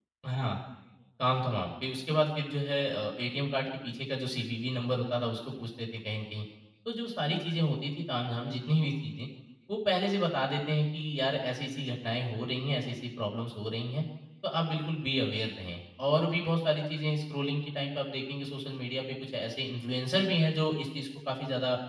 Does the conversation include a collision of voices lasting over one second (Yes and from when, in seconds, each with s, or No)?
No